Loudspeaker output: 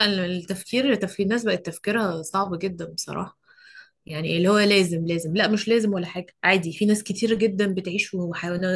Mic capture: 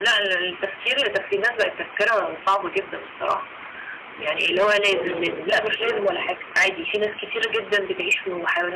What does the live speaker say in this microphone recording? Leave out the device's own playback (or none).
ما الحوار ياخد آه، وقته يعني